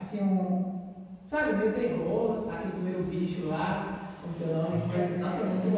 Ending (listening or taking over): listening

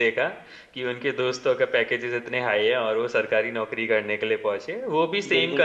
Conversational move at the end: listening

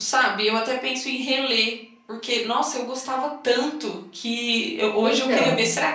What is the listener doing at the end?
listening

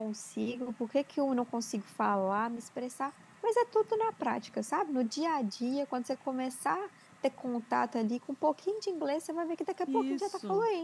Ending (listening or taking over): taking over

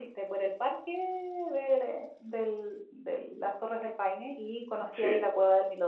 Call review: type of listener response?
listening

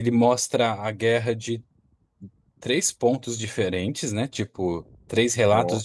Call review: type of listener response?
listening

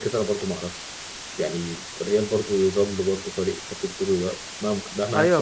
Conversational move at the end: taking over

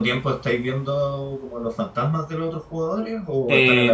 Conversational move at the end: taking over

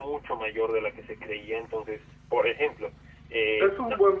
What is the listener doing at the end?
taking over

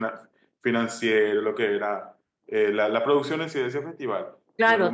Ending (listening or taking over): taking over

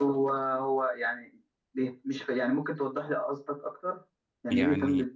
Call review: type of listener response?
taking over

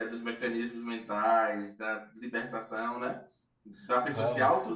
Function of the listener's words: listening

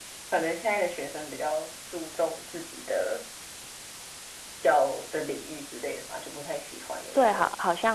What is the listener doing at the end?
taking over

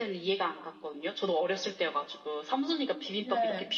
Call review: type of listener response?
listening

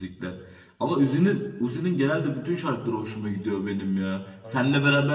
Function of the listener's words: listening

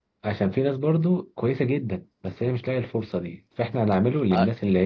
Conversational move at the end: listening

